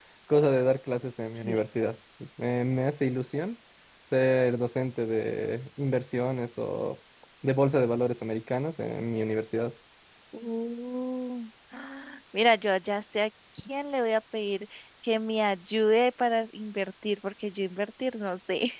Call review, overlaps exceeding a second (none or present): none